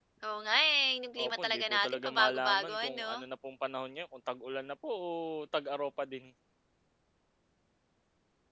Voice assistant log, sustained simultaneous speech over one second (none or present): present